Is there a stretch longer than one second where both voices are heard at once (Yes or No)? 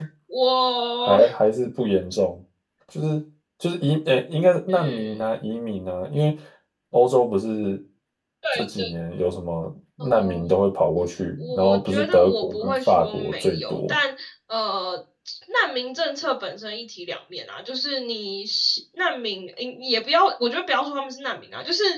Yes